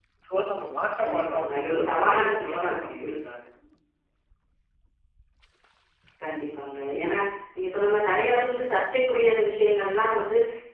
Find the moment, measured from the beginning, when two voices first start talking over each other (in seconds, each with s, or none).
1.0 s